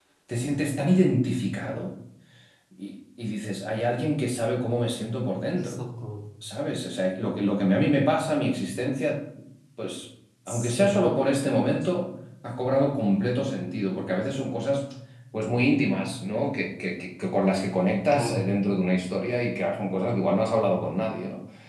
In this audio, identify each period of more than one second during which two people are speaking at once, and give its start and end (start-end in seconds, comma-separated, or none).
none